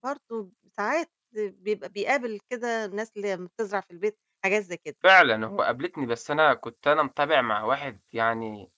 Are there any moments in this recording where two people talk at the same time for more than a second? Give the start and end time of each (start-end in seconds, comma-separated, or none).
none